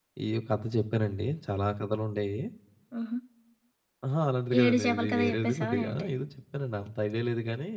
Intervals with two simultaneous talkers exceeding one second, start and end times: 4.6-6.1

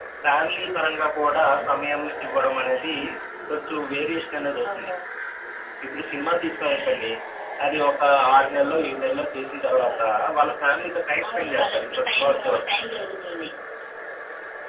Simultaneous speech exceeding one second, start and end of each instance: 11.4-12.6

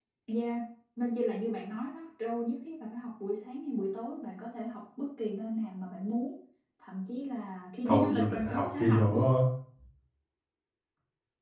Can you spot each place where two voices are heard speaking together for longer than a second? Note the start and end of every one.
7.8-9.2

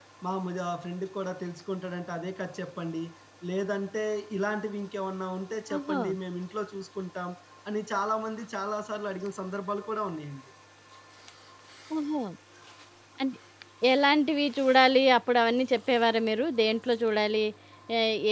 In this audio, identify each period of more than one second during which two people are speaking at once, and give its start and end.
none

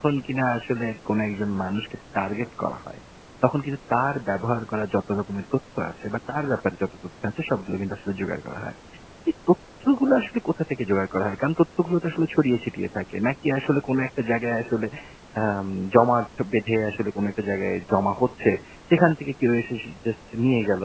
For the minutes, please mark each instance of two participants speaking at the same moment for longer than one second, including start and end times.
none

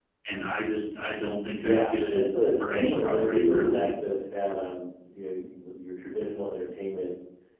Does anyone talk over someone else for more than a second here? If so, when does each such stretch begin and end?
1.6-3.9

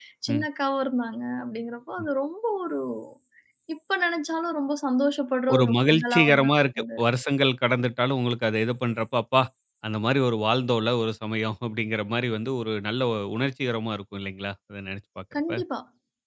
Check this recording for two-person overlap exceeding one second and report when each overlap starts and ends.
5.5-7.0

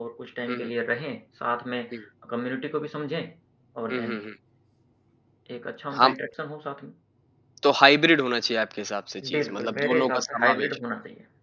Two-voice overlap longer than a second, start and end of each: 9.3-10.8

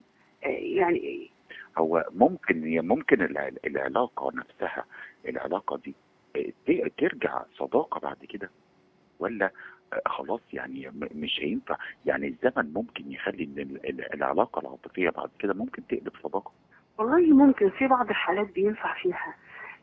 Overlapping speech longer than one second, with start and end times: none

